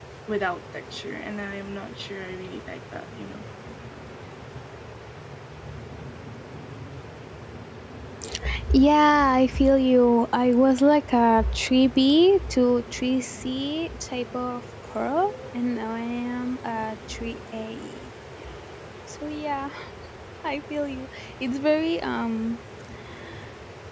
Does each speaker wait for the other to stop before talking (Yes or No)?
Yes